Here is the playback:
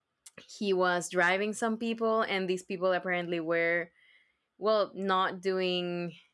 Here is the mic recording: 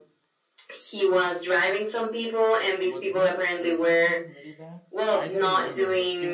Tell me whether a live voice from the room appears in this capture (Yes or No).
Yes